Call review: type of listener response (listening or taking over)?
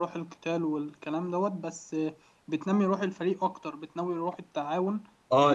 taking over